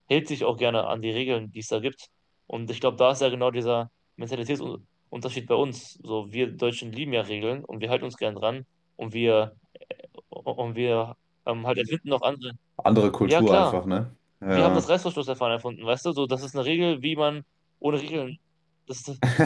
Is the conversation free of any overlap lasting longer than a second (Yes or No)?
Yes